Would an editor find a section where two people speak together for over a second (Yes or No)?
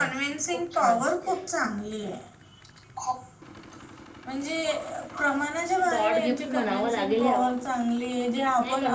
Yes